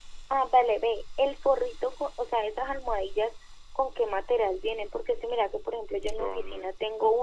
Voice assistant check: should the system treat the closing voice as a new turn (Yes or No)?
No